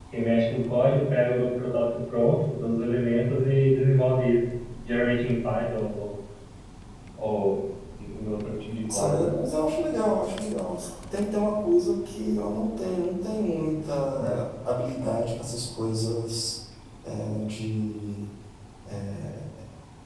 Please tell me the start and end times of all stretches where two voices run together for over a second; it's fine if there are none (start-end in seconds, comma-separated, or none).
none